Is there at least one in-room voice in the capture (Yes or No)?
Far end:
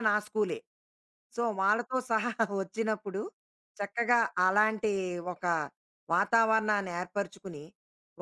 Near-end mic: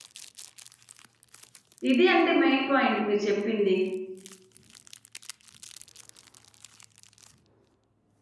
Yes